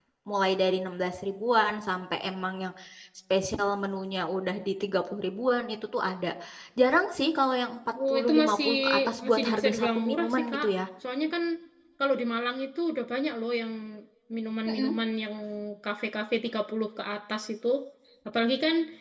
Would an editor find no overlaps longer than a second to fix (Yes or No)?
No